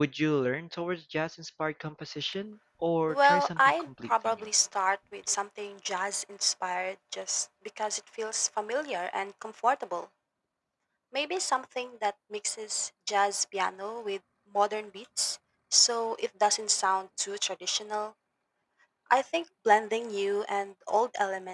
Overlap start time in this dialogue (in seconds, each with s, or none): 3.1 s